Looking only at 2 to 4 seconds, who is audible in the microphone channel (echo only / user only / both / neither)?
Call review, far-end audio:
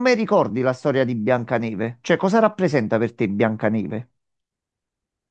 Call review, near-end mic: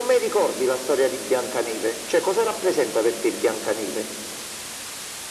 echo only